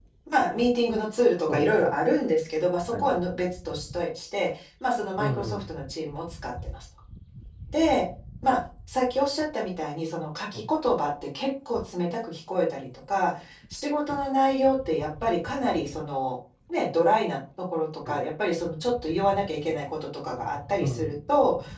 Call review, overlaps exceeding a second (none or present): none